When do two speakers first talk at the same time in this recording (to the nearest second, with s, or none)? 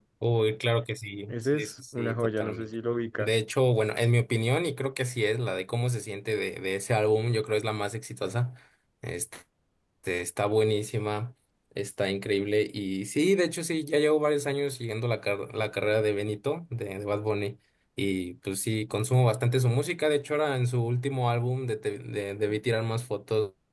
1 s